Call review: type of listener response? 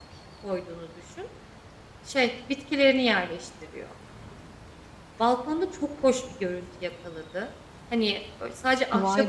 listening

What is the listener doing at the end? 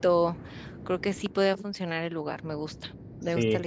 taking over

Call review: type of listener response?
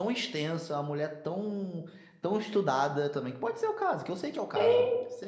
taking over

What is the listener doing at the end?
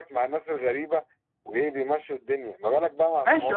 taking over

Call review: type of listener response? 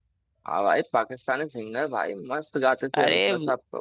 taking over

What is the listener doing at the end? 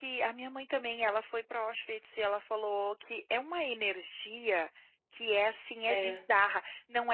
listening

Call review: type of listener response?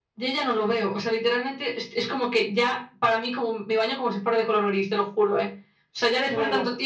taking over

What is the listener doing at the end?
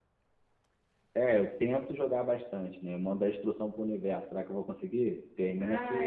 taking over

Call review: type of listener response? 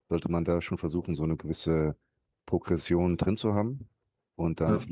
listening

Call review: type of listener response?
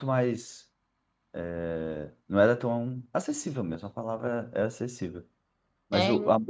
listening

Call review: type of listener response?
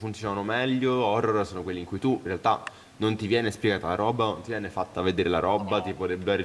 listening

